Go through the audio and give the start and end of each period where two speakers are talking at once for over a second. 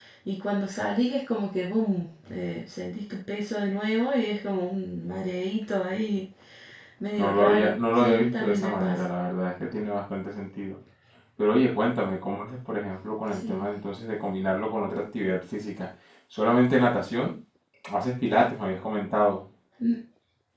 7.2-9.1

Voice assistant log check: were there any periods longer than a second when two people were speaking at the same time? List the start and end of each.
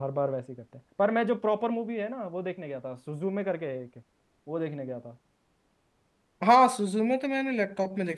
none

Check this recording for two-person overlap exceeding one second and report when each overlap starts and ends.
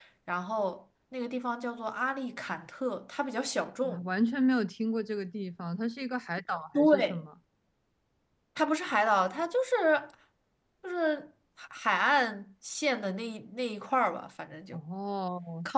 none

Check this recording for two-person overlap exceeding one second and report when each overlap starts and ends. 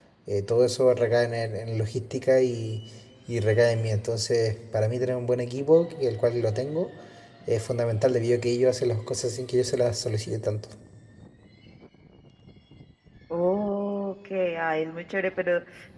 none

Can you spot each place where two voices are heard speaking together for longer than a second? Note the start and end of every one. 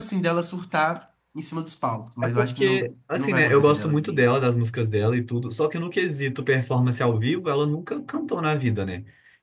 2.4-4.2

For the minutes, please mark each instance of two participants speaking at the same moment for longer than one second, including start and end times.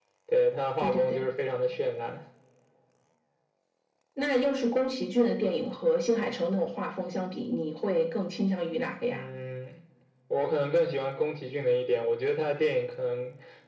none

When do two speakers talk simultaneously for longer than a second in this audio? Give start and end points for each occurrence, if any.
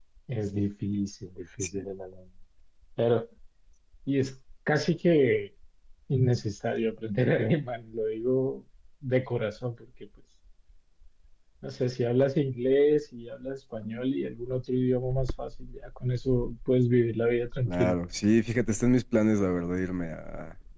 none

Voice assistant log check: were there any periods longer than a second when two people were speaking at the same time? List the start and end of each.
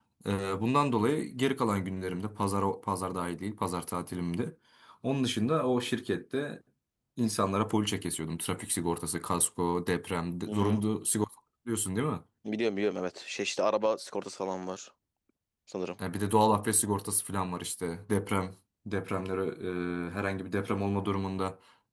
none

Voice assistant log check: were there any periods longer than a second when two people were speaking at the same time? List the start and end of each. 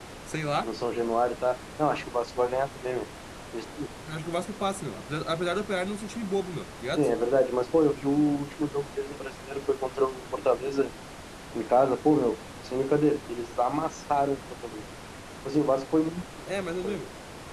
none

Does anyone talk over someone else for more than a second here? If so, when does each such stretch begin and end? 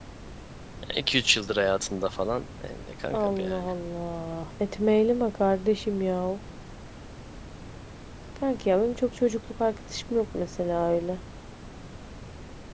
none

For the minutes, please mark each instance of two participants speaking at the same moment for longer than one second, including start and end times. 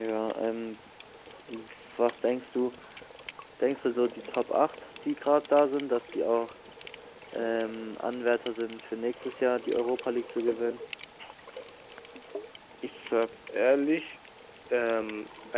none

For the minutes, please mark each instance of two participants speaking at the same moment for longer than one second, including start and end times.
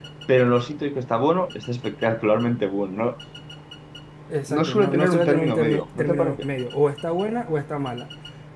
4.5-6.4

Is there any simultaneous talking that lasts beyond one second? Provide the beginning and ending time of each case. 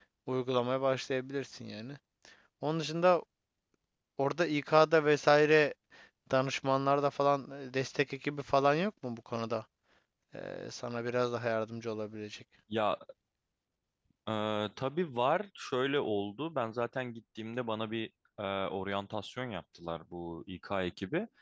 none

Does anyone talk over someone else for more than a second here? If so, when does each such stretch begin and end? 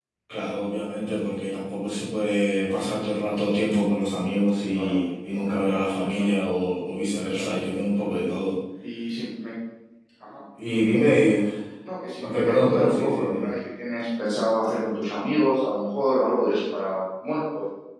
12.2-13.5

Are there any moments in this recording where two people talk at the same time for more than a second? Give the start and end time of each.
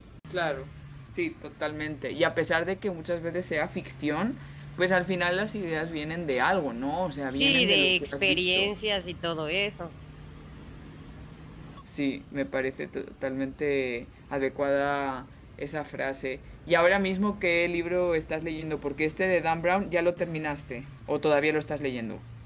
7.3-8.7

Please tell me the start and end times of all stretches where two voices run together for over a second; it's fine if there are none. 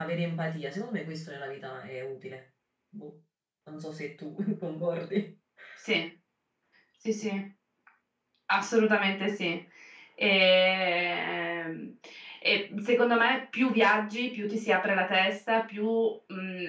none

